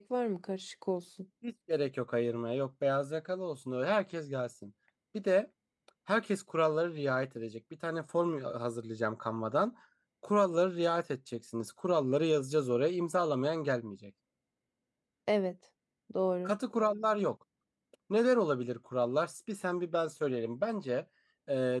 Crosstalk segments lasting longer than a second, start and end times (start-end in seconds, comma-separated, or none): none